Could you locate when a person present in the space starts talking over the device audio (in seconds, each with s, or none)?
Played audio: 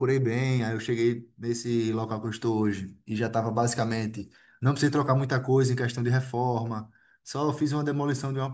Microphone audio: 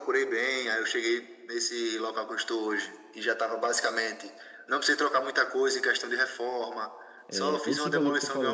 7.3 s